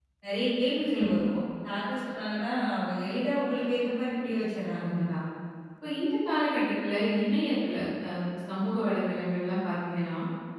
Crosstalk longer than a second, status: none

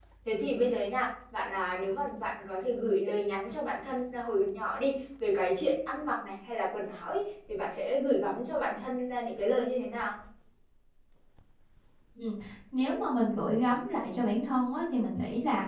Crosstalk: none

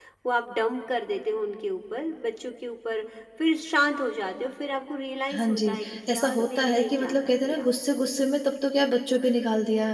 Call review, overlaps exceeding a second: present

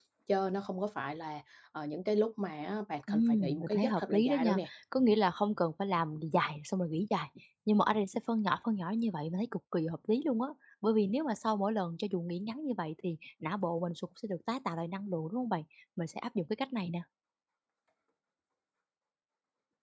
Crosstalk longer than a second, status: present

